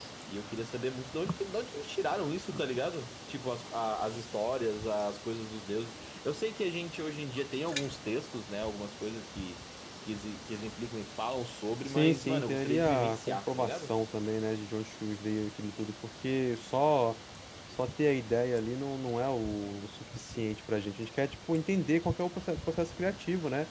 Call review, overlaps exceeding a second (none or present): present